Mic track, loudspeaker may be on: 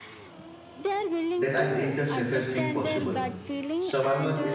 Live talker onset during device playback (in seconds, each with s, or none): 1.4 s